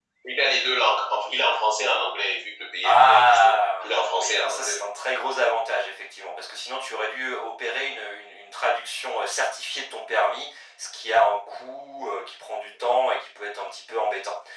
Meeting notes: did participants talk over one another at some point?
Yes, from 2.8 s

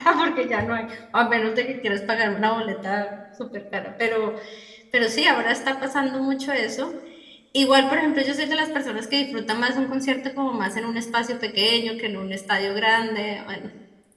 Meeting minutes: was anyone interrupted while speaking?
No

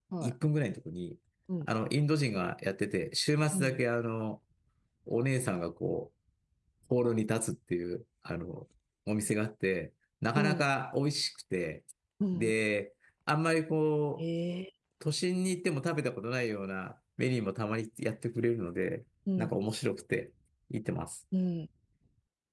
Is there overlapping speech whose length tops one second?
No

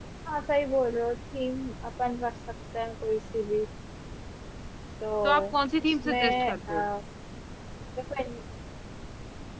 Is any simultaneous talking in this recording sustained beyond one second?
Yes, from 5.2 s

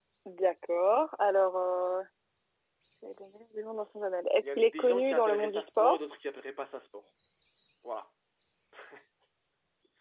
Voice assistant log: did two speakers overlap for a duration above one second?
Yes, from 4.4 s

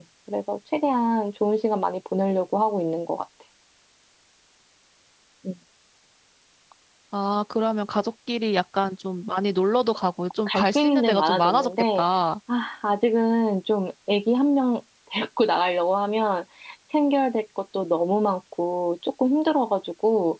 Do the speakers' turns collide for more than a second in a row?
Yes, from 10.5 s

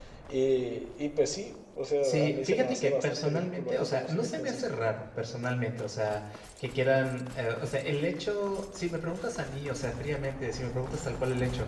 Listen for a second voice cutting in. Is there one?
Yes, from 2.0 s

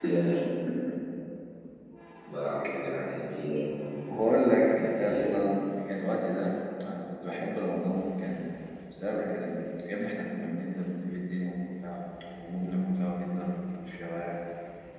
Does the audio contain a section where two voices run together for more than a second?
No

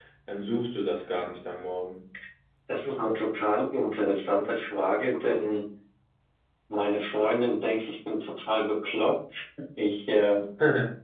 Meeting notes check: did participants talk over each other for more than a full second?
No

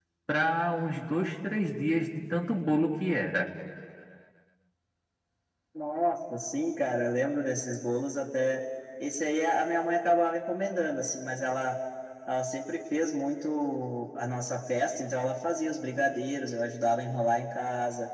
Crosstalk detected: No

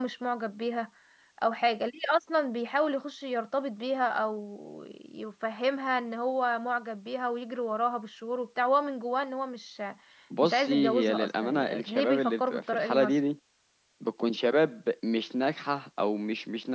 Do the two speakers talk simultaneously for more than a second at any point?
Yes, from 10.4 s

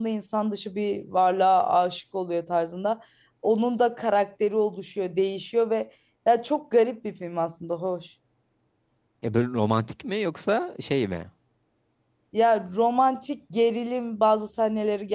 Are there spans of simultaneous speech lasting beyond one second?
No

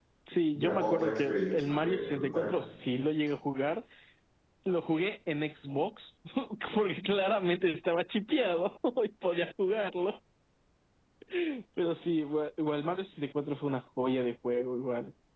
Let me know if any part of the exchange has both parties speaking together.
Yes, from 0.5 s

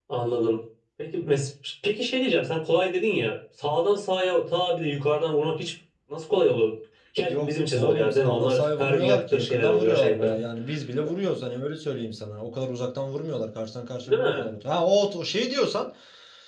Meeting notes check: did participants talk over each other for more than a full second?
Yes, from 7.3 s

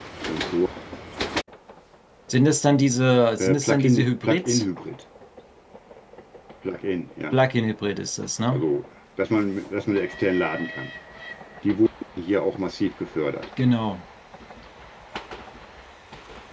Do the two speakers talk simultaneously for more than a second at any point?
Yes, from 3.4 s

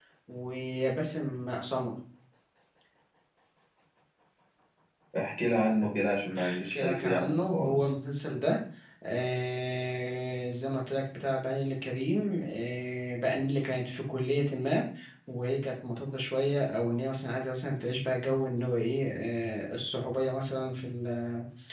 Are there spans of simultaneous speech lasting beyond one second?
Yes, from 6.3 s

